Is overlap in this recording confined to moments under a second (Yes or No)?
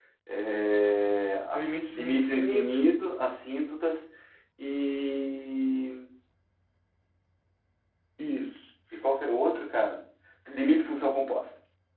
No